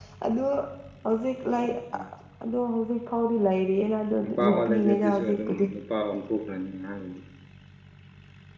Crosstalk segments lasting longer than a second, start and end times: 4.2-5.6

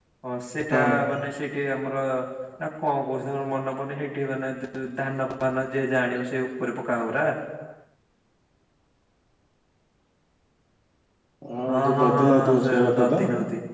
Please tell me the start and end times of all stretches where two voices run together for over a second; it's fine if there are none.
11.7-13.2

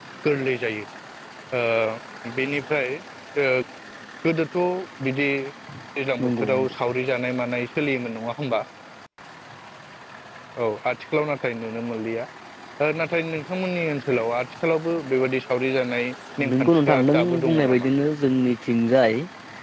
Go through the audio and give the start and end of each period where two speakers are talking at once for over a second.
16.5-17.9

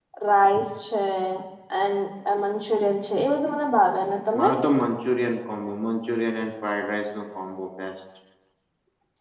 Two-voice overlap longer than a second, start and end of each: none

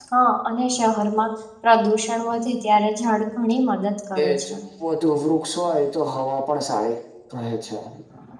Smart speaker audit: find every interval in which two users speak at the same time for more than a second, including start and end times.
none

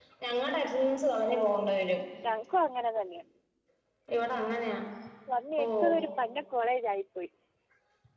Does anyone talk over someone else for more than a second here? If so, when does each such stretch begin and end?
none

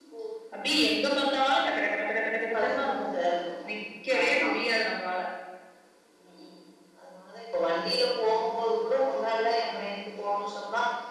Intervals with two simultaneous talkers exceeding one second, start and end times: none

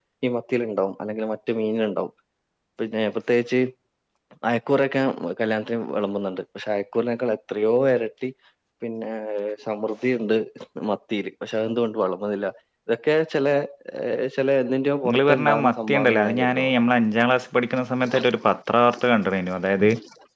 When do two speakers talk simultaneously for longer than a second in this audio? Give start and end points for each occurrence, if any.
15.0-16.7

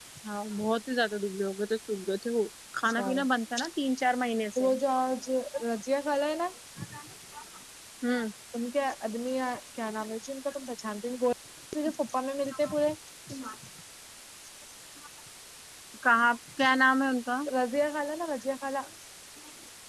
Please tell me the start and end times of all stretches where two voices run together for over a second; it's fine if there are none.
none

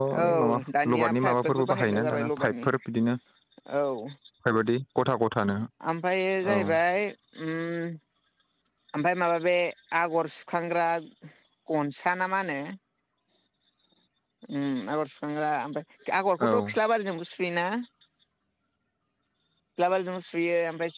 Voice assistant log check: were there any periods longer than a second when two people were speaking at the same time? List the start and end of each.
0.9-2.6

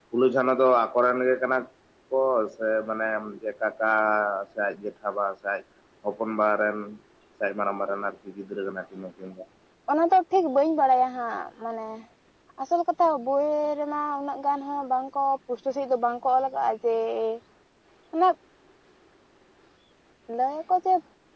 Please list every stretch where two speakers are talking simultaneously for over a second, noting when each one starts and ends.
none

